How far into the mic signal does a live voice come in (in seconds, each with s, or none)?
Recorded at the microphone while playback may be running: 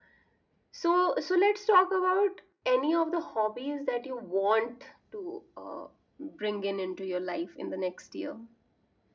none